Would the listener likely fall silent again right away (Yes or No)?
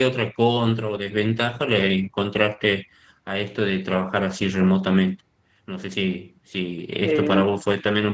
Yes